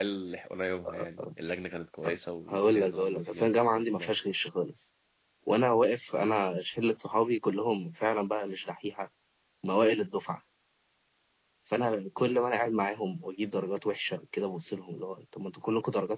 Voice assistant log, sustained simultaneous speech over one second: present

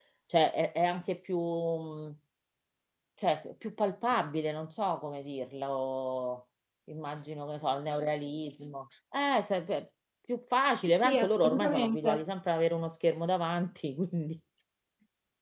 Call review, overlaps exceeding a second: present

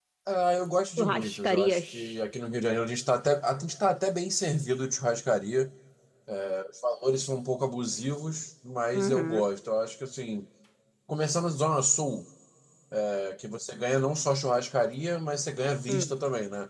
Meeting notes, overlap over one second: present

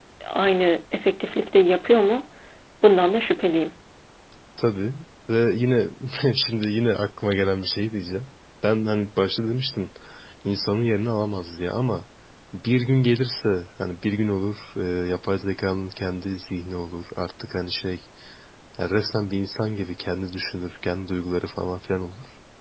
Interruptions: none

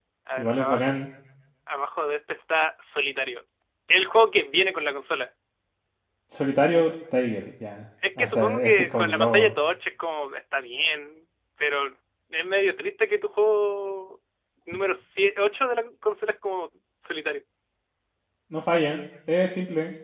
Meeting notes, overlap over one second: present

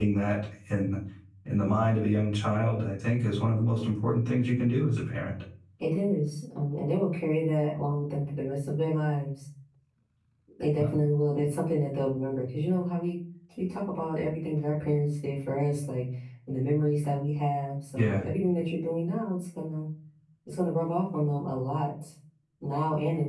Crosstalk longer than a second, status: none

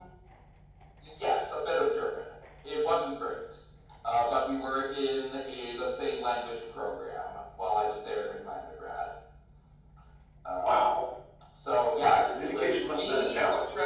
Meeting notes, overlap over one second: present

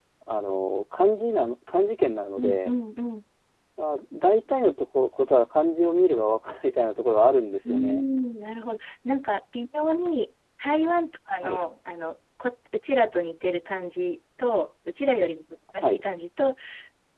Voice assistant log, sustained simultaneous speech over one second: none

